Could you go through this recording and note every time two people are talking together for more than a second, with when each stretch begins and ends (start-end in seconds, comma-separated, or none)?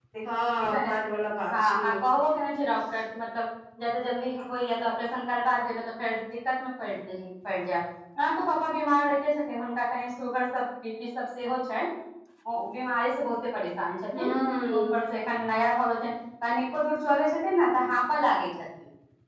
none